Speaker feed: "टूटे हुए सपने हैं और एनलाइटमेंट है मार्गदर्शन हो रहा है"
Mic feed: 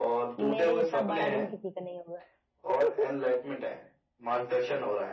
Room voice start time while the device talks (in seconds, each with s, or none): 0.4 s